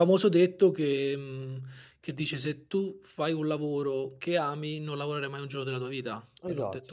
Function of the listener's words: taking over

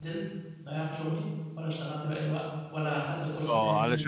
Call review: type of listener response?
taking over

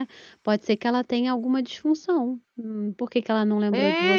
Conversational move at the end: taking over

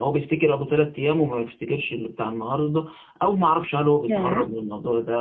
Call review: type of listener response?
listening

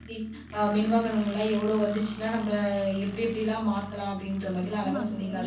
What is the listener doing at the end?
taking over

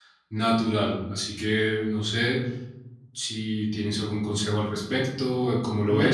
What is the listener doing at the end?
taking over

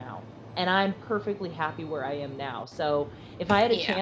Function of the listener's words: listening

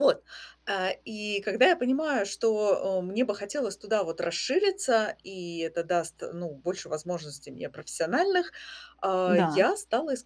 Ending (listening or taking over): listening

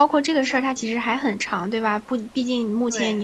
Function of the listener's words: listening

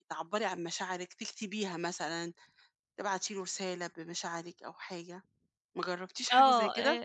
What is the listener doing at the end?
taking over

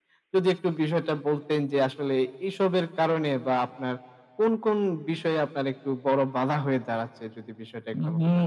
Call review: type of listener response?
taking over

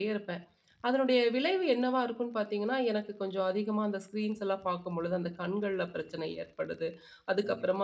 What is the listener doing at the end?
listening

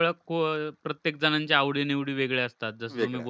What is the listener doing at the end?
listening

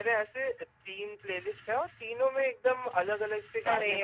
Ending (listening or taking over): taking over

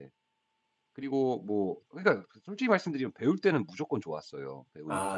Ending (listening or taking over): taking over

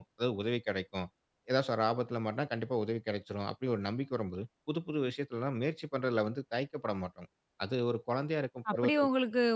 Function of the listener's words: taking over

